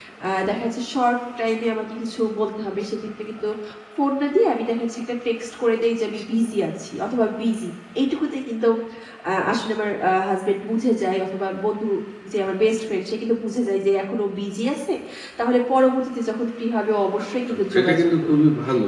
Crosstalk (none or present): present